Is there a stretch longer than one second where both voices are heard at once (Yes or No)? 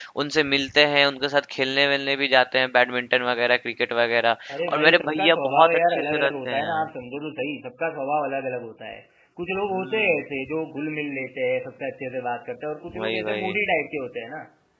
Yes